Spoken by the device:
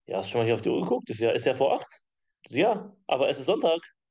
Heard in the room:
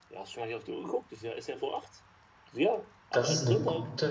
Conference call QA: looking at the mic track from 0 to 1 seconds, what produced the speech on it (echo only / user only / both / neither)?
echo only